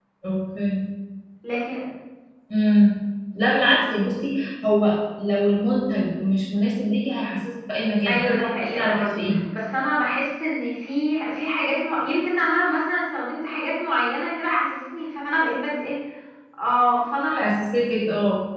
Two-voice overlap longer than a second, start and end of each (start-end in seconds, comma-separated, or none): 8.1-9.4